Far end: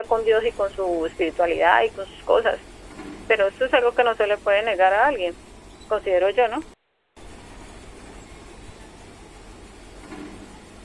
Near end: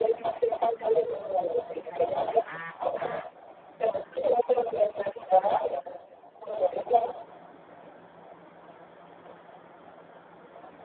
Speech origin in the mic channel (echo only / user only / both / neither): echo only